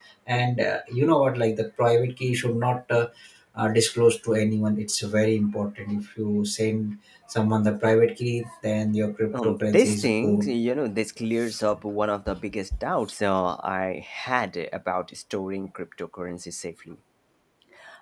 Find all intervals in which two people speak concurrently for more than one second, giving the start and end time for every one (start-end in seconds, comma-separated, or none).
9.3-10.5